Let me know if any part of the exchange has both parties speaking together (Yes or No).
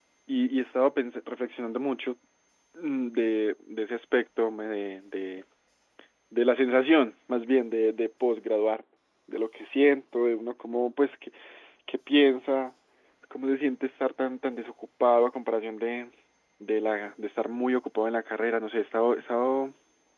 No